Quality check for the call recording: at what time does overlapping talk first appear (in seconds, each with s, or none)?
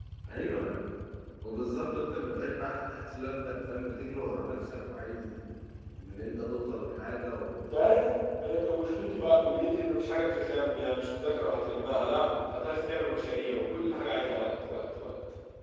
none